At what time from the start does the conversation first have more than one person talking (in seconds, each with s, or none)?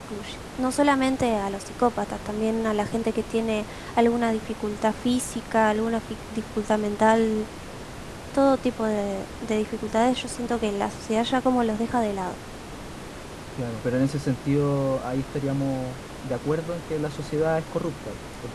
none